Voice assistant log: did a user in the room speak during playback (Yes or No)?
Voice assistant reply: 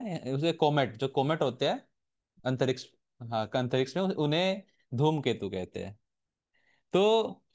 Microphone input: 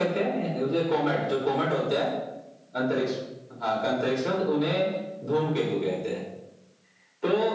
No